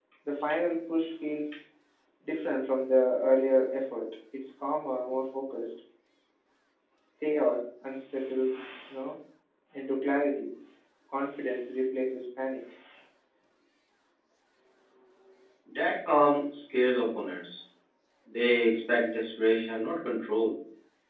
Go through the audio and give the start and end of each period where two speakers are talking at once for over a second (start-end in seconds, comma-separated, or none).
none